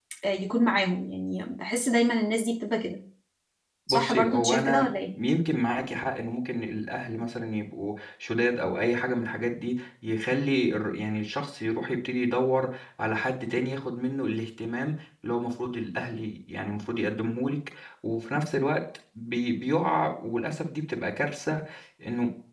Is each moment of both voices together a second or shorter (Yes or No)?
No